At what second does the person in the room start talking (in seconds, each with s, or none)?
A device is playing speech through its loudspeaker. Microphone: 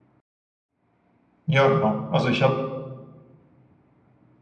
1.4 s